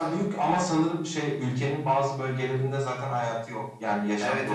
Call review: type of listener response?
taking over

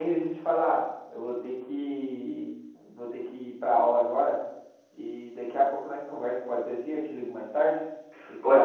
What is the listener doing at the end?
taking over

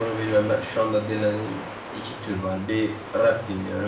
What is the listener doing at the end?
listening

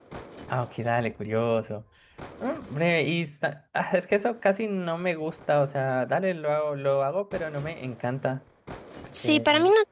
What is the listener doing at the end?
taking over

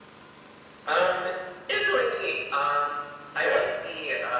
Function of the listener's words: listening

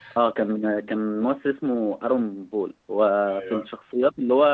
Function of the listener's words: listening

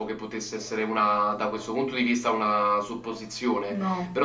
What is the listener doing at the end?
listening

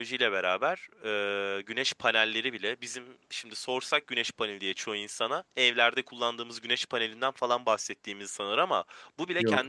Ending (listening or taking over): listening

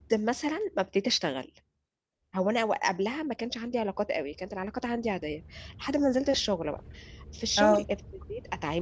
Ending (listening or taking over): listening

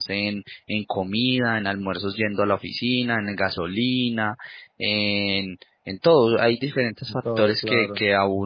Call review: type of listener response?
listening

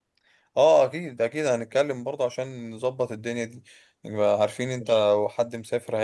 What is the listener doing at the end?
listening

